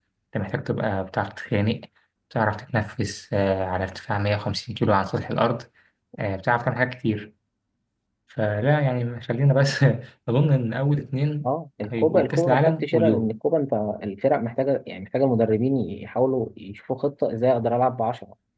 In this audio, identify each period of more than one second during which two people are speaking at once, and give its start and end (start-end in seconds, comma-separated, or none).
11.9-13.3